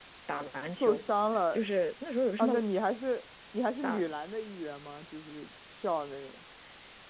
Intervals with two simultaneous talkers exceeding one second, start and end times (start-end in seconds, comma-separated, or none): none